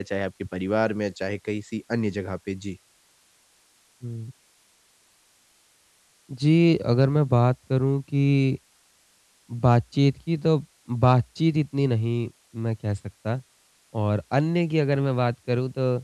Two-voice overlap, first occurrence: none

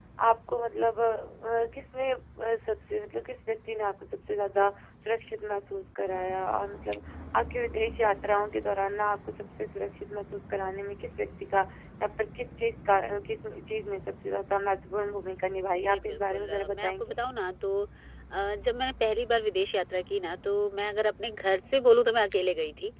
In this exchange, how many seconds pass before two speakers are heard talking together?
15.9 s

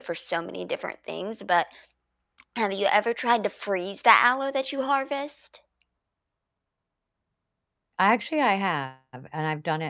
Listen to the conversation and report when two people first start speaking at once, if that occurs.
none

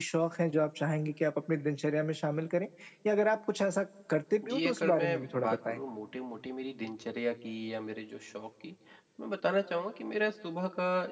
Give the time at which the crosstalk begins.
4.4 s

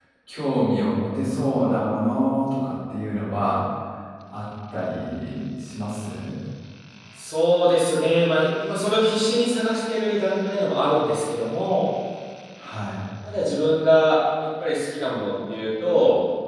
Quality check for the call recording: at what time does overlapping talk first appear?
none

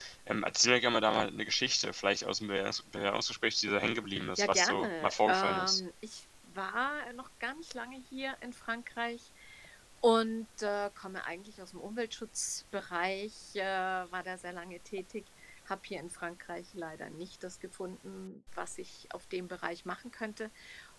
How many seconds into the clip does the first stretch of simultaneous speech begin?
4.1 s

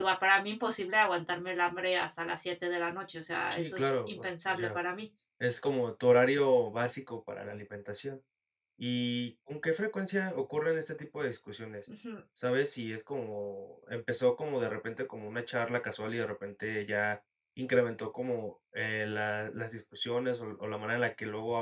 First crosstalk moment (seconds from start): 3.5 s

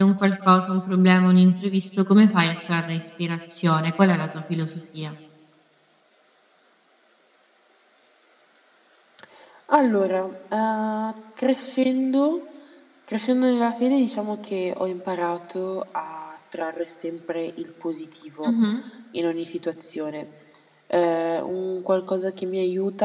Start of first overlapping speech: none

